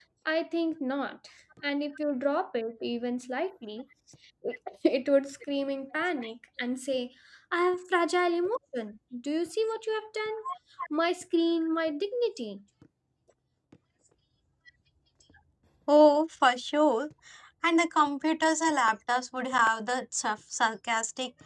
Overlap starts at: none

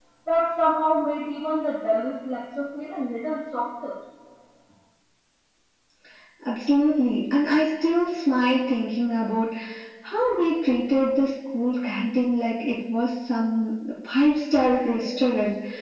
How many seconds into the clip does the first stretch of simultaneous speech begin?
none

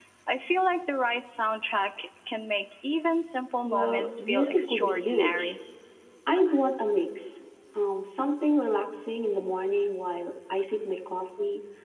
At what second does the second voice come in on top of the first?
3.6 s

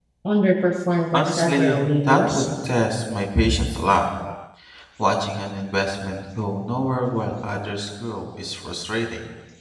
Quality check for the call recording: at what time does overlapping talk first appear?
1.1 s

